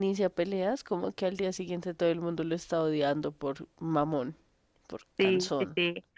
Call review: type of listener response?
taking over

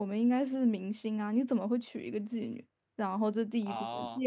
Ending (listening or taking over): listening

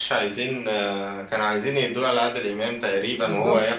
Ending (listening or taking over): taking over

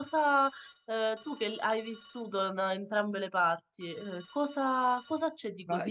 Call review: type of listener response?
taking over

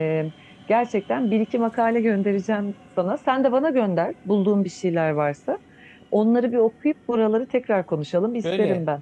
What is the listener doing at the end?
taking over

